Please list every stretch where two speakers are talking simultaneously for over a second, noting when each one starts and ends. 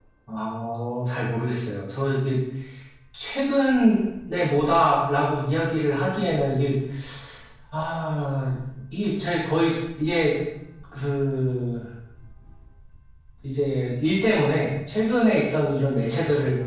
none

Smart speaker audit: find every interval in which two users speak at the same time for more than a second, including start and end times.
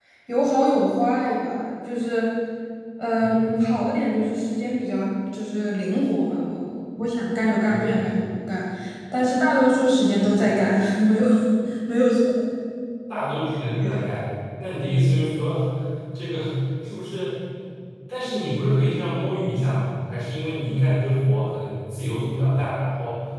none

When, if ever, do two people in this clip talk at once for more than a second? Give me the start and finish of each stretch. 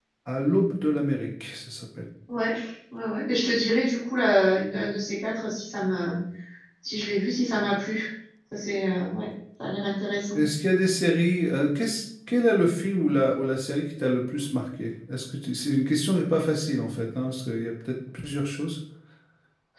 none

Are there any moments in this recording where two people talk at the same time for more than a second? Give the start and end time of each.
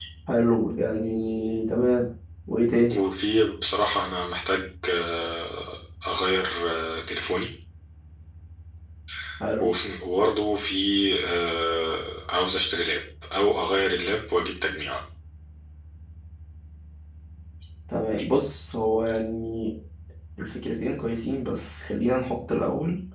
none

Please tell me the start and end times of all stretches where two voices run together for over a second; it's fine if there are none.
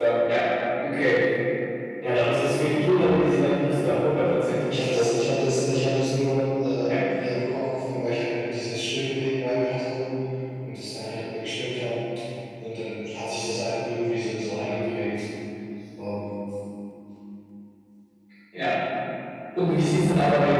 none

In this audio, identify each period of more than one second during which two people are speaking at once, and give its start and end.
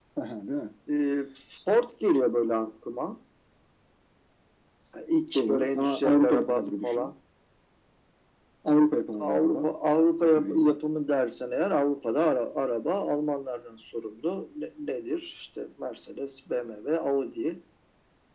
5.3-7.1

